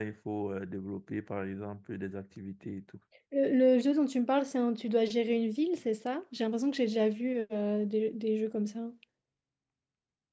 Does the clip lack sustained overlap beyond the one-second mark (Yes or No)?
Yes